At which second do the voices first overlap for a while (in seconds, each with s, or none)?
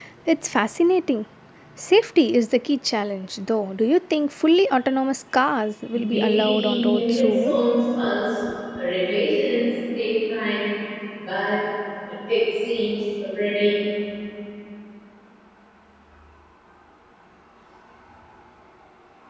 5.9 s